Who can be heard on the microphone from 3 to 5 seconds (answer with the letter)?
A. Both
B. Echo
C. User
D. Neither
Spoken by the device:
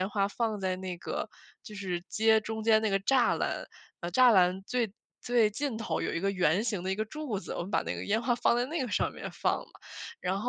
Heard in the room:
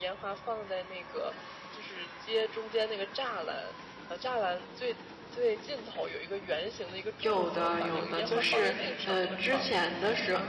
B